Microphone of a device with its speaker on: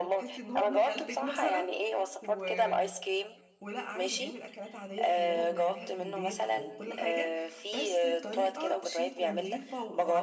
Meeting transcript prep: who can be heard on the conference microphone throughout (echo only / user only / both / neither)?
both